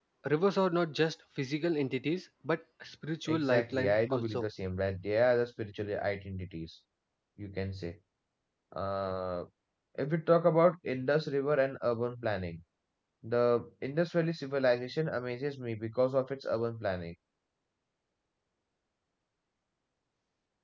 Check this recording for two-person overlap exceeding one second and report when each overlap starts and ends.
3.2-4.4

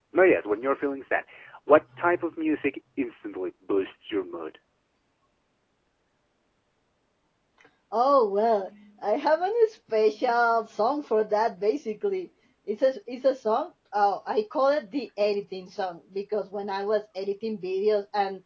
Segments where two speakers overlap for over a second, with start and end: none

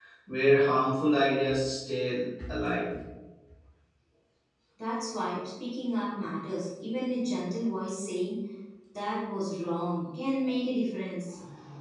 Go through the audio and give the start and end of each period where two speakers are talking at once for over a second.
none

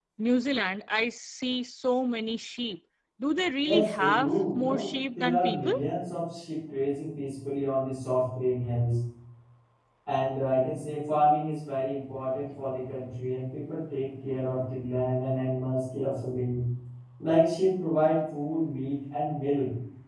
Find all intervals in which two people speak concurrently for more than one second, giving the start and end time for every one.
3.7-5.7

